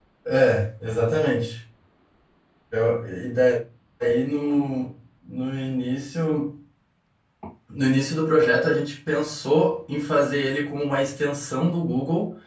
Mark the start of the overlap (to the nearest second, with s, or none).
none